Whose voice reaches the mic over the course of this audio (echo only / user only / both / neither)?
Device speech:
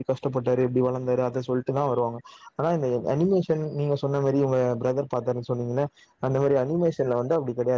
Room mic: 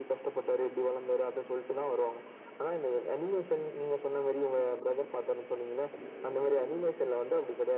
echo only